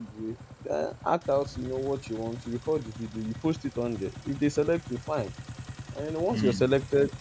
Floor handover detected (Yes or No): No